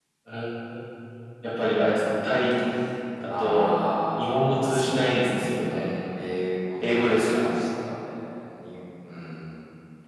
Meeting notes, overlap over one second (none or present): present